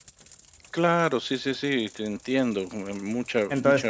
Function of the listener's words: taking over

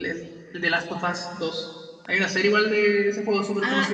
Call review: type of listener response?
taking over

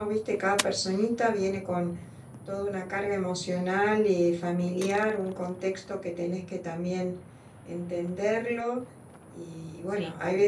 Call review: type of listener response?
listening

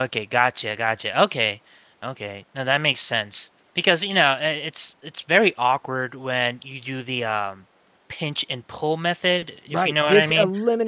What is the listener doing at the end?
taking over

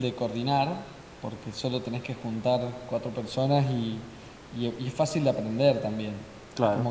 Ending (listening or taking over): listening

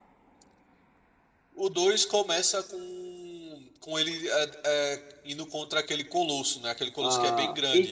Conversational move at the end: taking over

